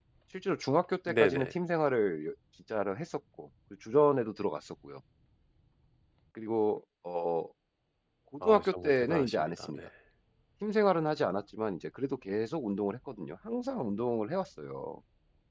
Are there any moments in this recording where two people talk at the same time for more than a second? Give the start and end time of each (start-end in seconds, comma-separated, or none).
8.4-9.9